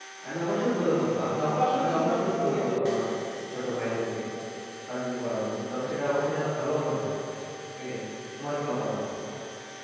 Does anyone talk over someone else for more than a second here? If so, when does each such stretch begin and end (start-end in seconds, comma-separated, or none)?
1.4-3.0